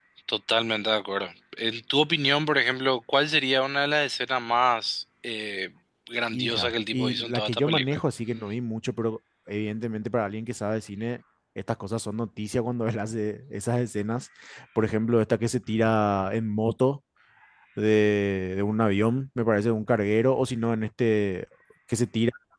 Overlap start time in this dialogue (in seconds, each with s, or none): 6.3 s